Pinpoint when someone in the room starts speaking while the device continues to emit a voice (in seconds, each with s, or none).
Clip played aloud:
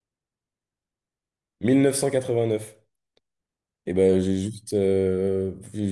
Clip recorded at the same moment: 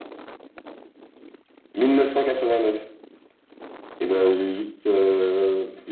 none